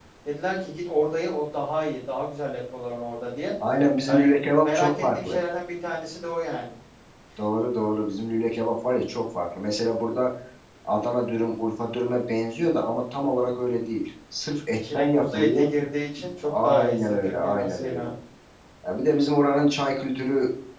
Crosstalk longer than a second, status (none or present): present